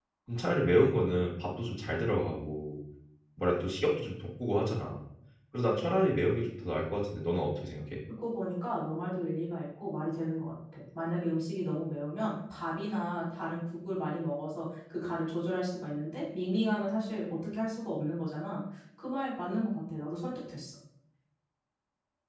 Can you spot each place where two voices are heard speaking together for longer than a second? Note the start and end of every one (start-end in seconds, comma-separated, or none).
none